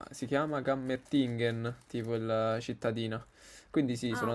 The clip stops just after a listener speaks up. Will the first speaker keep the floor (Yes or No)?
Yes